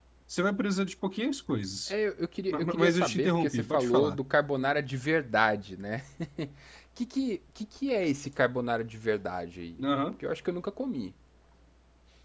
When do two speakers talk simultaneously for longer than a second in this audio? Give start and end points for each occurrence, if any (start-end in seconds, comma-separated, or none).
2.5-4.2